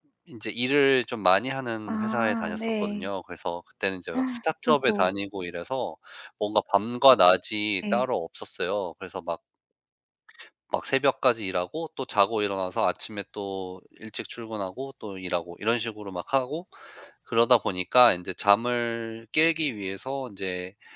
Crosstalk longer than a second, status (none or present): present